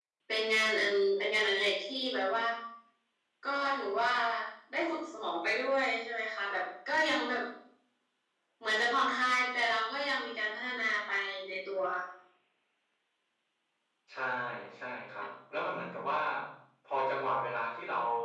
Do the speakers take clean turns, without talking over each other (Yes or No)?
Yes